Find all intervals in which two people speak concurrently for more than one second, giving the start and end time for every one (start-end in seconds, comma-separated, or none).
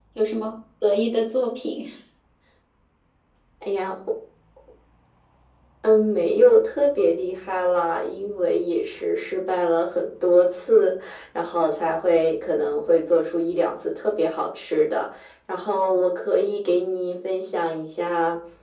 none